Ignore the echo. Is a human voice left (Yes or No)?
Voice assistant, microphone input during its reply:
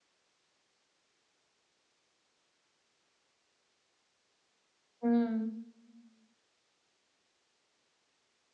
Yes